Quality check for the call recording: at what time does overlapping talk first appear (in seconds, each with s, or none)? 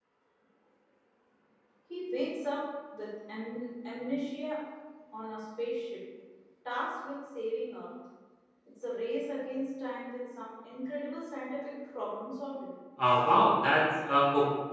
none